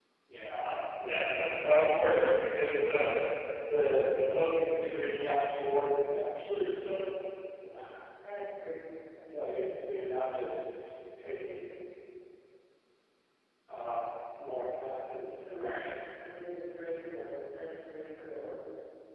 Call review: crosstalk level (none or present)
none